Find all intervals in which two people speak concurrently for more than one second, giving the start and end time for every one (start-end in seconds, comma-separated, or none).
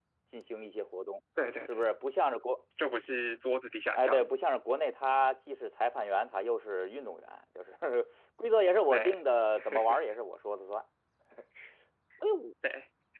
none